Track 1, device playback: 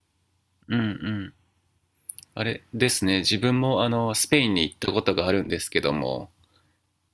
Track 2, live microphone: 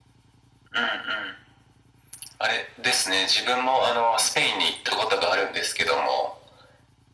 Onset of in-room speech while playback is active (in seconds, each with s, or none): none